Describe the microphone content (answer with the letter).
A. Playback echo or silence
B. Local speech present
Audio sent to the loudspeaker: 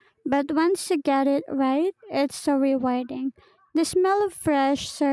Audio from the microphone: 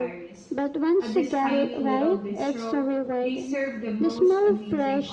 B